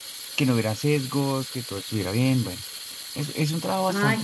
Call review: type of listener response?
taking over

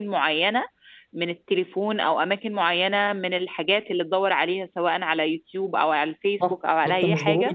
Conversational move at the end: taking over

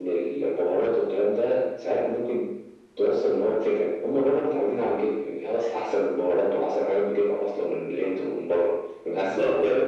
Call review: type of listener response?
taking over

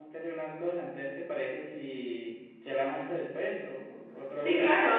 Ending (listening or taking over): taking over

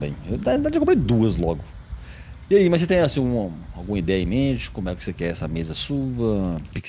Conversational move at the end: listening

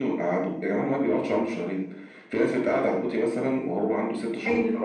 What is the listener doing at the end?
listening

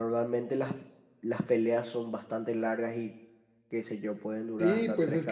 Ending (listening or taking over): taking over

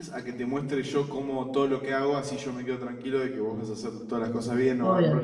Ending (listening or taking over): taking over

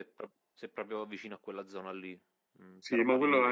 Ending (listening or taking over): taking over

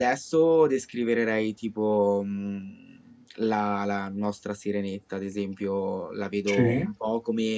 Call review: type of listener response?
listening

